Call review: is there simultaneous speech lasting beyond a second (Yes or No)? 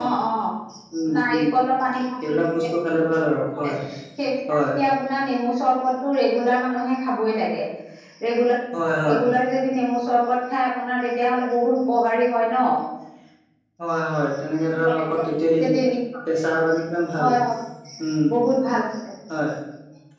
No